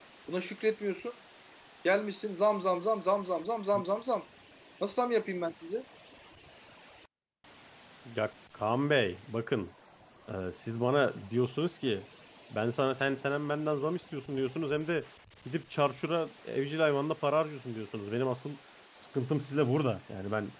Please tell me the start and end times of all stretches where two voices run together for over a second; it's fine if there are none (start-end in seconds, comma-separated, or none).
none